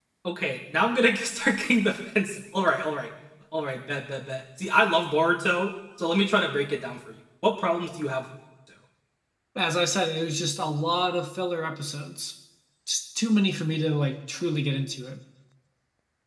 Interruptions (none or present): none